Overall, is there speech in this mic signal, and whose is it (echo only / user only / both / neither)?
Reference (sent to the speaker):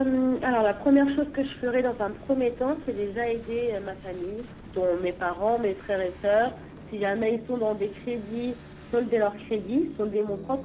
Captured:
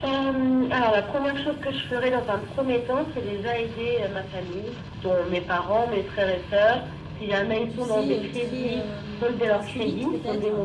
both